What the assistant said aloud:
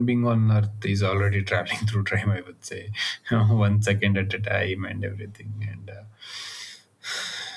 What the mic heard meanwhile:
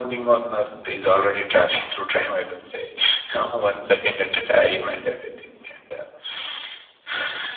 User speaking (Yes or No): No